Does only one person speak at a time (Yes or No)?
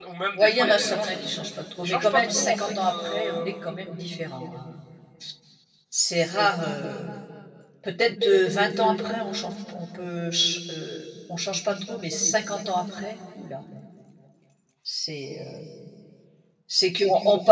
No